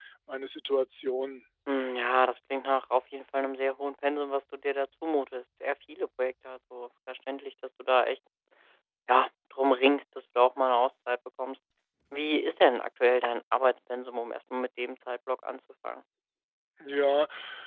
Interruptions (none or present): none